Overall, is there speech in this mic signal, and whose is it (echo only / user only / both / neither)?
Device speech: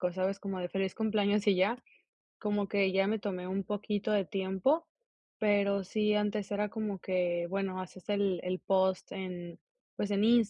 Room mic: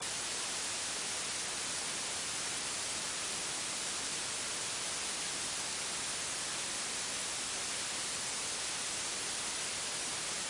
neither